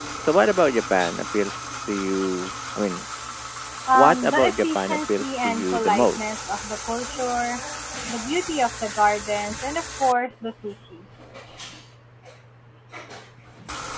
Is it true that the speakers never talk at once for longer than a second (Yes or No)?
No